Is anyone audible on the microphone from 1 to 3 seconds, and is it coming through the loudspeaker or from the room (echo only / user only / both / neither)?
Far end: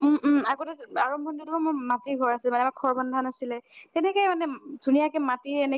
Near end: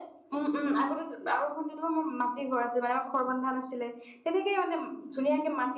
echo only